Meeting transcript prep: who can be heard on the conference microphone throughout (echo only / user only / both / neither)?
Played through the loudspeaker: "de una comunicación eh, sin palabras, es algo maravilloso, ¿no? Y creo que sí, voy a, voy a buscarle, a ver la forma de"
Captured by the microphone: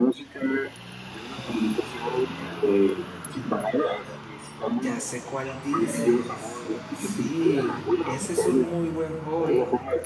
both